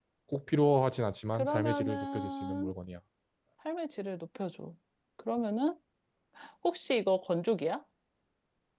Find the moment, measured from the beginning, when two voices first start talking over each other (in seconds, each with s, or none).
1.3 s